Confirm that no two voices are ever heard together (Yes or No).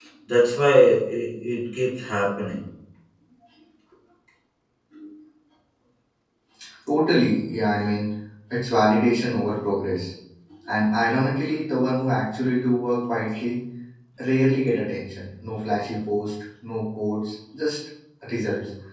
Yes